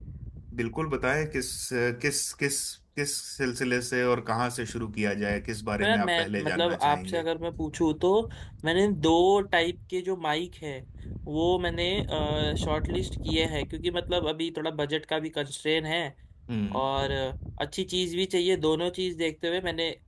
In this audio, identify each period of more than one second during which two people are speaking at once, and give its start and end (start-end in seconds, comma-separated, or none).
5.8-7.3